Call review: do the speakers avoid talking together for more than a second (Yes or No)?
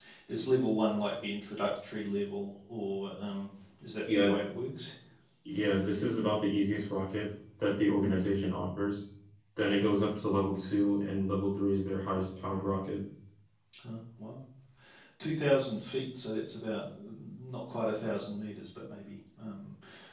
Yes